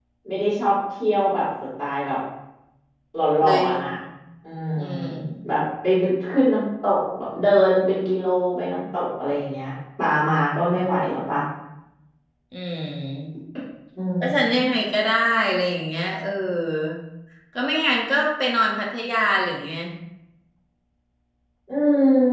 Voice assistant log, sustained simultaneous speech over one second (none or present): none